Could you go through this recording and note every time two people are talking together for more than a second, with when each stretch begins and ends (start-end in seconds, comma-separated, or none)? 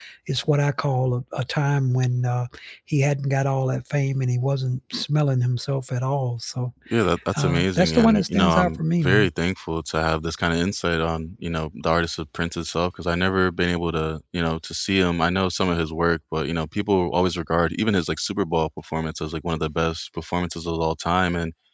7.3-9.3